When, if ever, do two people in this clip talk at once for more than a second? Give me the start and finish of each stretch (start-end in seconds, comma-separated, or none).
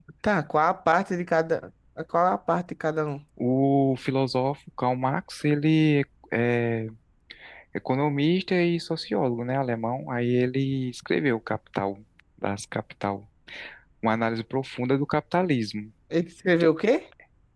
none